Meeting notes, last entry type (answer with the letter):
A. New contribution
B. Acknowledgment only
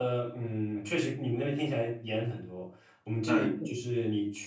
B